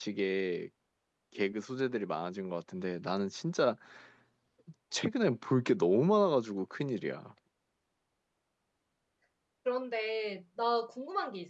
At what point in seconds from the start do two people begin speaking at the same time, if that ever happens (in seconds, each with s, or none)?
none